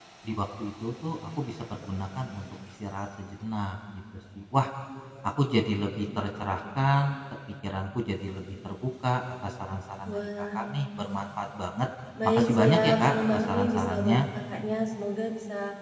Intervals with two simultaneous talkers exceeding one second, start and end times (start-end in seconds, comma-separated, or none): 12.2-14.2